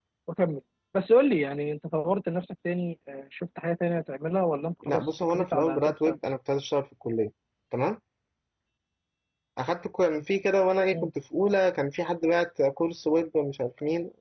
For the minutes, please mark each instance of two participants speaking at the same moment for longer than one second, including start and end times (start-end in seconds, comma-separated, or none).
4.8-6.2